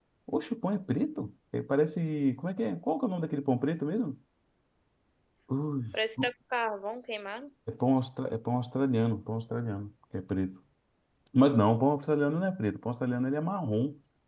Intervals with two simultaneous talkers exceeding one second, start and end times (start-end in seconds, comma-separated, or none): none